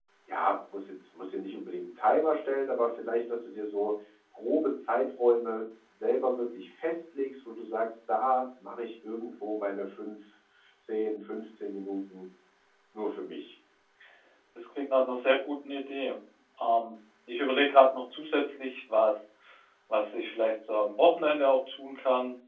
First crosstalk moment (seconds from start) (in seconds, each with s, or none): none